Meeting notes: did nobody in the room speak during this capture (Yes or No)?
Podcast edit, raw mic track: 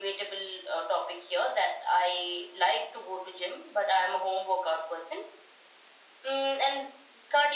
Yes